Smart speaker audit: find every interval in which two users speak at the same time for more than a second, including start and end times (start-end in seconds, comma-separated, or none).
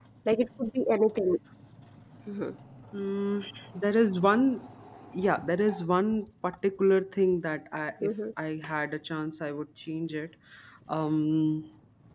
none